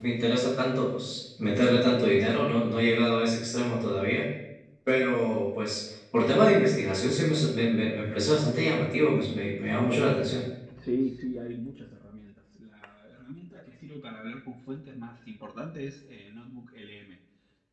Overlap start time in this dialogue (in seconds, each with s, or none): none